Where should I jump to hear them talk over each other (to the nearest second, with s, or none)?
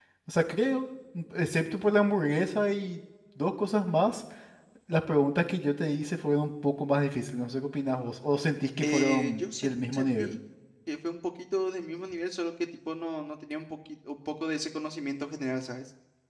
9 s